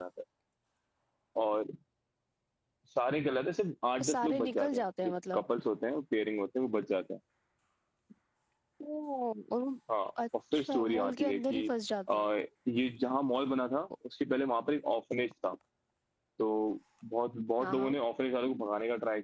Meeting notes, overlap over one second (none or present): present